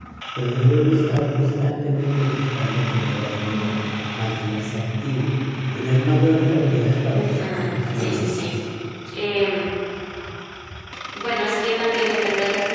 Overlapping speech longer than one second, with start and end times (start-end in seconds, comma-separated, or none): 7.1-8.5